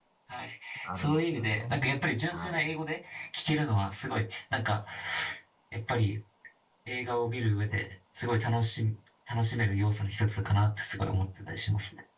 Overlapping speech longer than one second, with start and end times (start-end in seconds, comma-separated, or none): 0.8-2.7